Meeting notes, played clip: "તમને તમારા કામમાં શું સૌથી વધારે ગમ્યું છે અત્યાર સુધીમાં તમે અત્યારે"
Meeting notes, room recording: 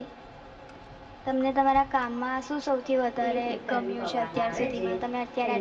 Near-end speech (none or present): present